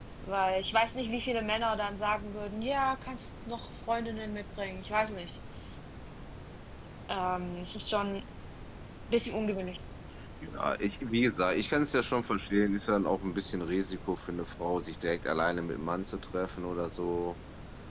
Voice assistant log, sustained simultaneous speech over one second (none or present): none